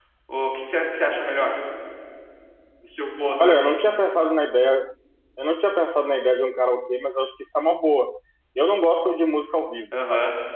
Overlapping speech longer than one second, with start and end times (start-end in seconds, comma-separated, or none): none